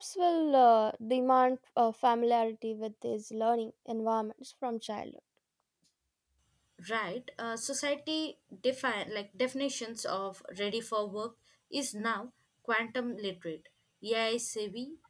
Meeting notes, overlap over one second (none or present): none